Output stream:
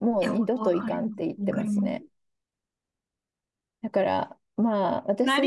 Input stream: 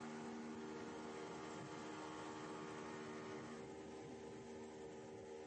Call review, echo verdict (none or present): none